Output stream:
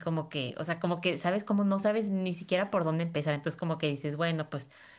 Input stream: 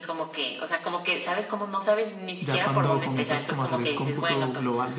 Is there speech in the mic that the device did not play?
Yes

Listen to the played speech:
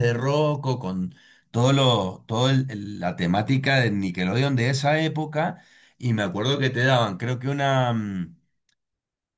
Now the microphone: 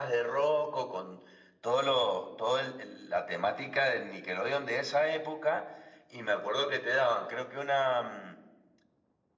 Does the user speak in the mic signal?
No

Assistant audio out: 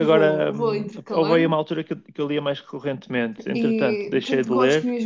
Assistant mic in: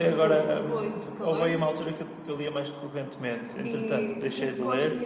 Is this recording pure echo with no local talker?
Yes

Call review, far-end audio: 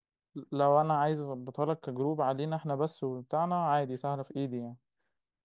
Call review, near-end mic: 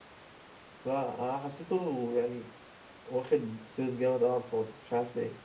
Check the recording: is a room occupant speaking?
Yes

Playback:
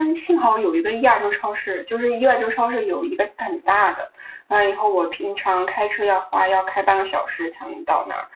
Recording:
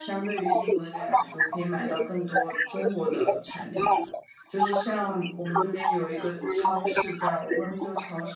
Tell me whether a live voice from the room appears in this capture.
Yes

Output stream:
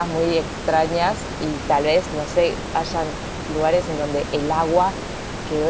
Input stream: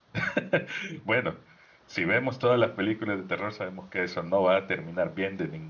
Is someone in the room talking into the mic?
Yes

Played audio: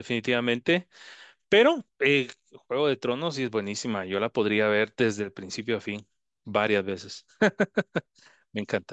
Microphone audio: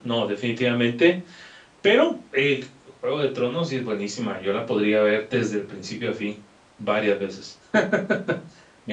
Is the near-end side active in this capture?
No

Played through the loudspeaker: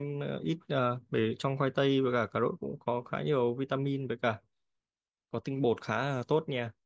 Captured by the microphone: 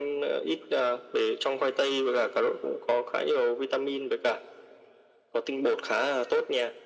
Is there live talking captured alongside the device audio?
No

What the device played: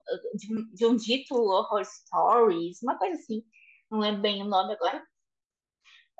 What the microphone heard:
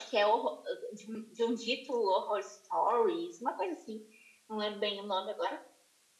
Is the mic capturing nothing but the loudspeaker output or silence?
Yes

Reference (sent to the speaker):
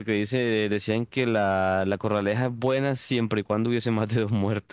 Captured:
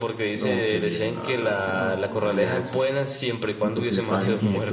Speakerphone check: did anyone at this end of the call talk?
Yes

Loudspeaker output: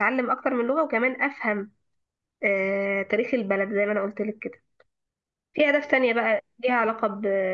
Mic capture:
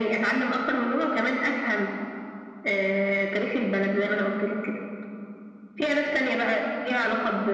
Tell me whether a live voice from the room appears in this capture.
No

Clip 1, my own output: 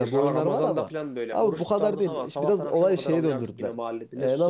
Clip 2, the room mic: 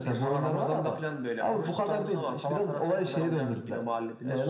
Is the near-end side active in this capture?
No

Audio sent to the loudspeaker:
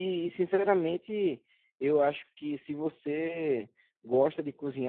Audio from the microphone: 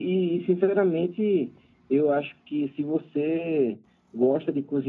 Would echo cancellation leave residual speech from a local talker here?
No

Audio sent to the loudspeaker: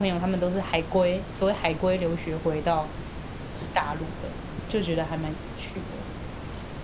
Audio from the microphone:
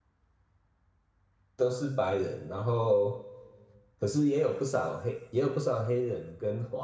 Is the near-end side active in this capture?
Yes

